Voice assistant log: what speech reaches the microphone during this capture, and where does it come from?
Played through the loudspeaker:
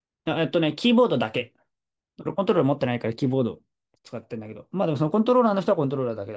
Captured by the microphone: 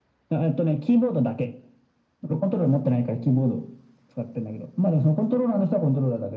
echo only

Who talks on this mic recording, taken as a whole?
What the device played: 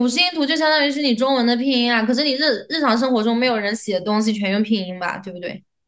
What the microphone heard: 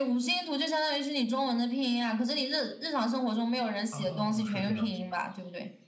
both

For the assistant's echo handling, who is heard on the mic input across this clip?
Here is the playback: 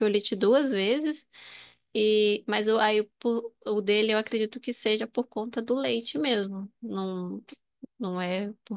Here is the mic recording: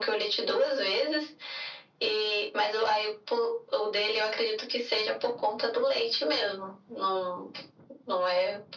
echo only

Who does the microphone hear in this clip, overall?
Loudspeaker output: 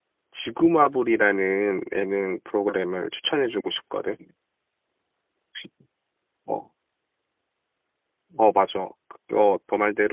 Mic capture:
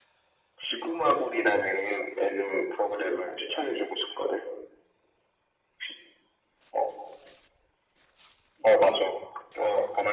echo only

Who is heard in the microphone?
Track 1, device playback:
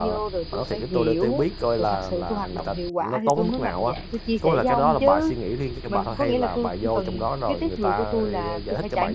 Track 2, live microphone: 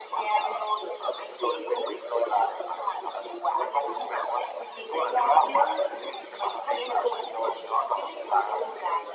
echo only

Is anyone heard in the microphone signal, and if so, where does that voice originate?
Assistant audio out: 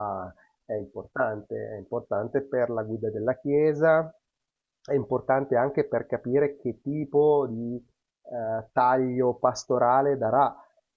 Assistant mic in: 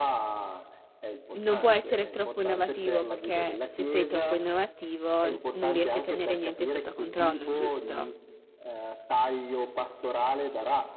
both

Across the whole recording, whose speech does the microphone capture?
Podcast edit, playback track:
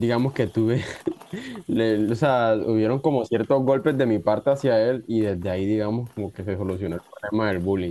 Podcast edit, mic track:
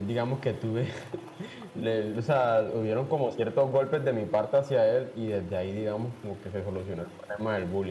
echo only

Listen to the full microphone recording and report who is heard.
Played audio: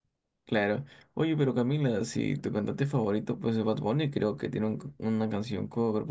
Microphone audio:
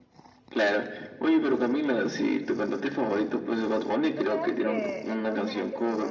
both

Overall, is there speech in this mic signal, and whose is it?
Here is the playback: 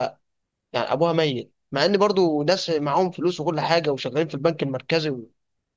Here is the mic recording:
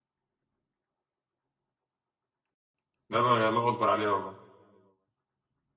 user only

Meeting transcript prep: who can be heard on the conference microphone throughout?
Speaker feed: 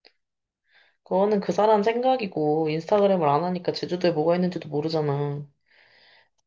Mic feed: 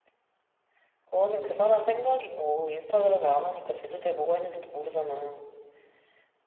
echo only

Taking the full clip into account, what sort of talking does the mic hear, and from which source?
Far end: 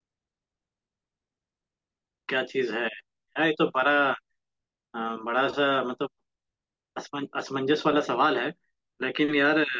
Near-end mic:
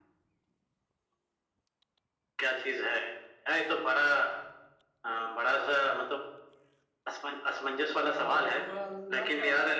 both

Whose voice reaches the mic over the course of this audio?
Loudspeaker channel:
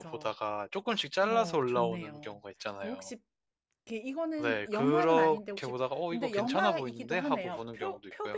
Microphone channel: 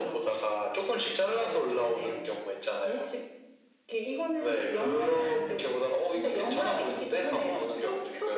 echo only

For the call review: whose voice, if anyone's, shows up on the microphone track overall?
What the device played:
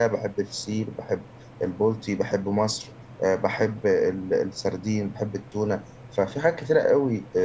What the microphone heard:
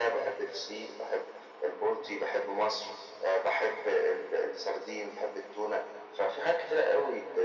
echo only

